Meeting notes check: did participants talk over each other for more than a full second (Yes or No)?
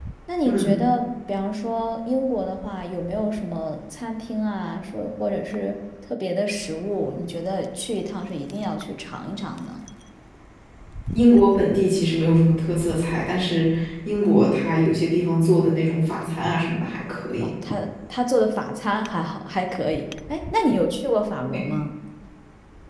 No